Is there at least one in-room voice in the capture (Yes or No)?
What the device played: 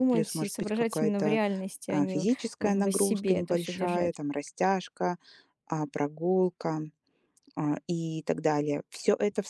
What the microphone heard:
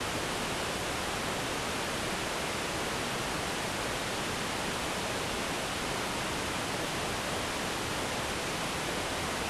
No